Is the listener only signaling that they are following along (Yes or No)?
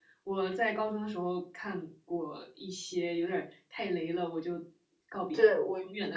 No